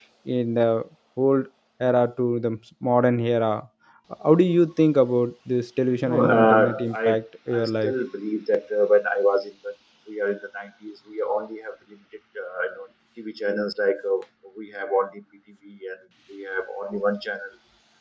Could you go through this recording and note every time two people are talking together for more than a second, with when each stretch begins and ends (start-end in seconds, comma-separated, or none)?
6.0-7.2